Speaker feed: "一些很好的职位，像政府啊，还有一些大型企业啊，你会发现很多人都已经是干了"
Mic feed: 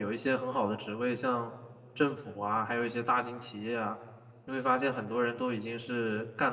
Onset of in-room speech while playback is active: none

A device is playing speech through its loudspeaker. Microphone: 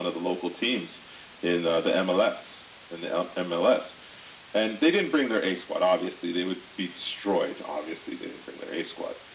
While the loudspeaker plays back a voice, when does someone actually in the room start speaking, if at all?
none

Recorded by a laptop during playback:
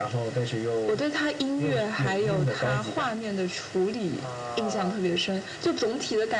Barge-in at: 4.2 s

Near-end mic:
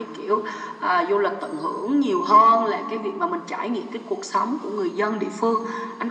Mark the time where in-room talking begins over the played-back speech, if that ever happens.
none

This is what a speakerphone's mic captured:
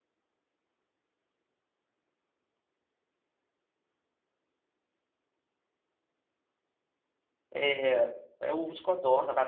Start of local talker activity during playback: 7.5 s

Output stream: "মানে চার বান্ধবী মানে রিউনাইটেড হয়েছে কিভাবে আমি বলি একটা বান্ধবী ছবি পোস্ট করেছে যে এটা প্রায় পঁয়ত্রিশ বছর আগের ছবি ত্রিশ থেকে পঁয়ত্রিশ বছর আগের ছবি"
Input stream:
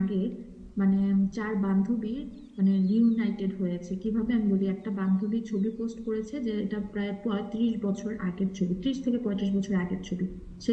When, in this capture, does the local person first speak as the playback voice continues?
none

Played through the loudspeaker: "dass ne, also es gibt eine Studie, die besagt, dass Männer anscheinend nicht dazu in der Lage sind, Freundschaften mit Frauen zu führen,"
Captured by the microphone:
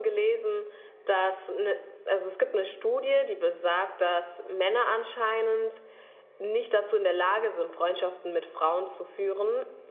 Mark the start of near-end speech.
none

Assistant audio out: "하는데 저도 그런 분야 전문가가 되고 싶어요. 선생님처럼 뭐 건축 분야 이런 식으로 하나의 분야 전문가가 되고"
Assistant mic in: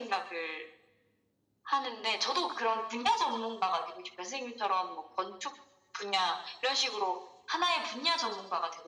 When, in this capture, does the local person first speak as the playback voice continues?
none

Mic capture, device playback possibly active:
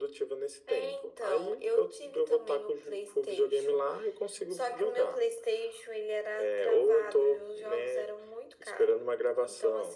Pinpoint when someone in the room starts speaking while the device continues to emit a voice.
none

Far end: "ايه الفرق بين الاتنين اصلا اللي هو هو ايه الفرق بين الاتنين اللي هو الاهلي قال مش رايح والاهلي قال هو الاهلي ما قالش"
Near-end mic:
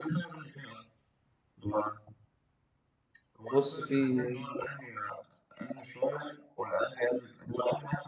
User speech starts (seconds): 3.5 s

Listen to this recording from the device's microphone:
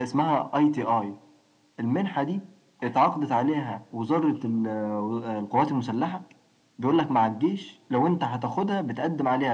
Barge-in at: none

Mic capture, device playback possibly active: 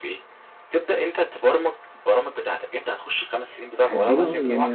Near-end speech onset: 3.8 s

